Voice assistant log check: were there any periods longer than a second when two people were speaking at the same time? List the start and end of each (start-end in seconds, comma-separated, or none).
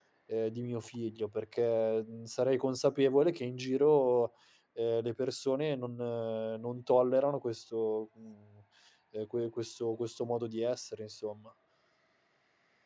none